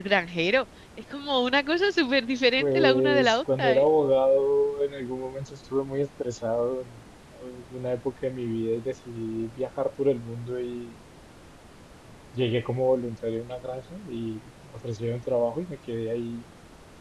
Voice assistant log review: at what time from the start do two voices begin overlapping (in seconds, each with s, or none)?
2.6 s